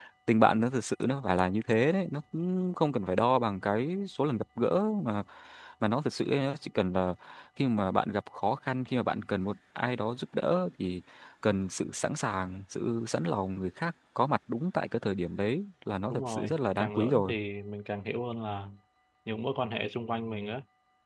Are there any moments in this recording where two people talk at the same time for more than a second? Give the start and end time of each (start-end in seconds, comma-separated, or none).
16.1-17.4